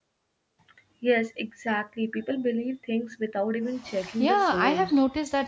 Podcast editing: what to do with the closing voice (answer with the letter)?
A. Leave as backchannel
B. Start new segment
B